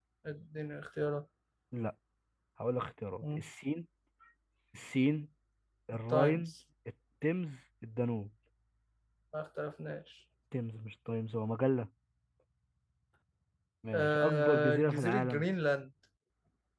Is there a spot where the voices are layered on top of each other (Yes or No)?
Yes